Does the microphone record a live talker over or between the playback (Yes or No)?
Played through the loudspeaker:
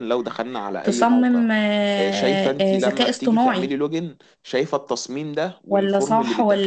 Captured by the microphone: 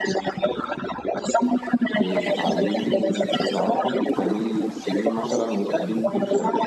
Yes